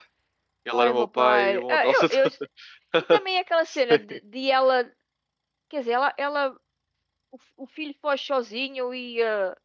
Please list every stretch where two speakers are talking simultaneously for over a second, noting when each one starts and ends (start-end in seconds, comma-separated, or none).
0.7-2.3